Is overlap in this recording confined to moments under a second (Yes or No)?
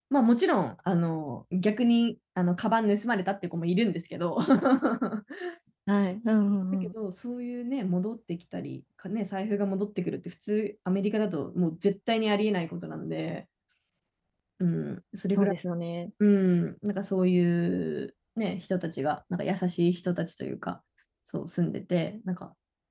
Yes